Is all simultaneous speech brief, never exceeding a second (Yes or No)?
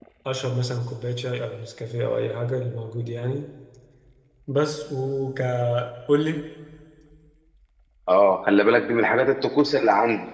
Yes